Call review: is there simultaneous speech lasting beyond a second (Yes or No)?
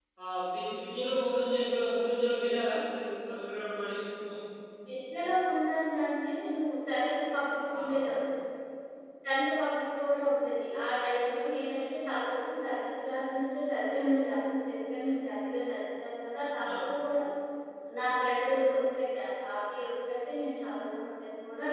No